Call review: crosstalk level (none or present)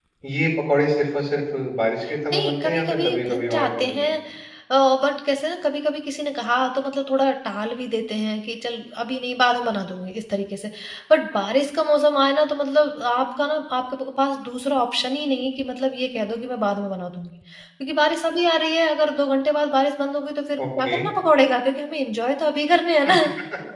present